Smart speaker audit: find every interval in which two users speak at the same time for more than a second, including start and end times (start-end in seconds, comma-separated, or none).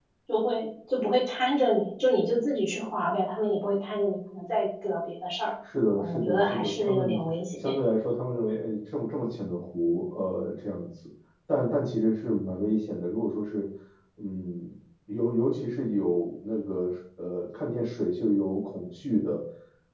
6.0-7.2